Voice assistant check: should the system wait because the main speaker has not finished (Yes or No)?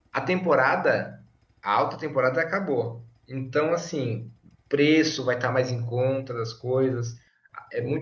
Yes